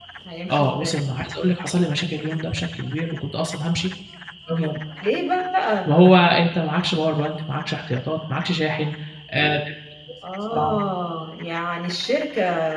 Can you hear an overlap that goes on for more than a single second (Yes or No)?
No